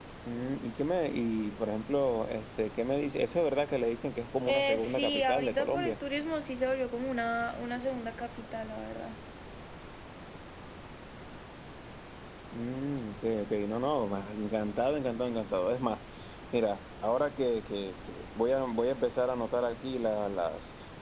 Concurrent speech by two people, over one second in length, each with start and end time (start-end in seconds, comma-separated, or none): 4.5-5.9